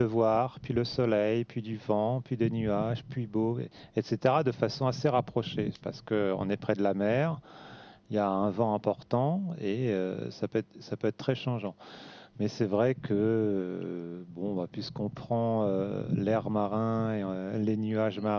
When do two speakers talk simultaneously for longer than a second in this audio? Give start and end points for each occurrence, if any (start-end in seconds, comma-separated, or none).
none